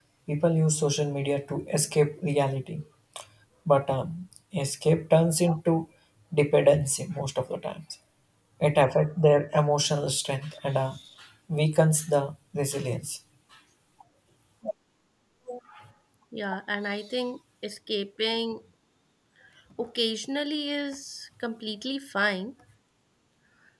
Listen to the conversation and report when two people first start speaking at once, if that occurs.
none

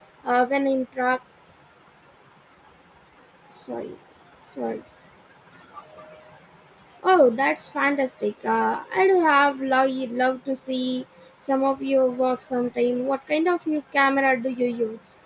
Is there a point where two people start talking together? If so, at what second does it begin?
none

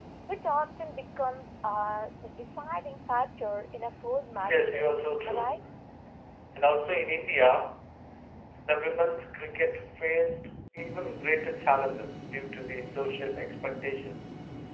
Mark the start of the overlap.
4.3 s

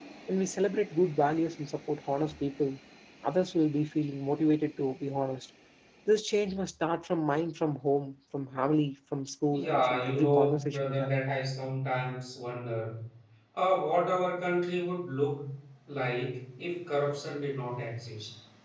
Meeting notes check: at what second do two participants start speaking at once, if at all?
9.5 s

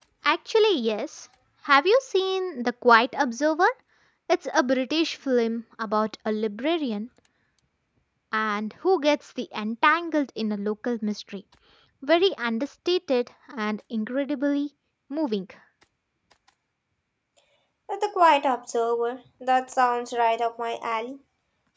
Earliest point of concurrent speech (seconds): none

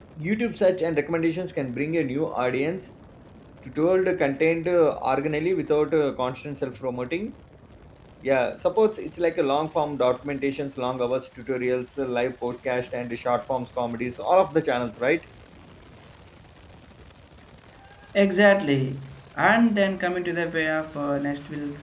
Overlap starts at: none

